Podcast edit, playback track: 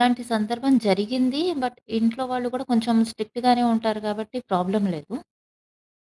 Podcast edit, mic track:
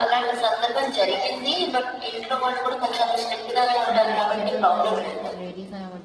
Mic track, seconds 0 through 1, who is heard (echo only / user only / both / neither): echo only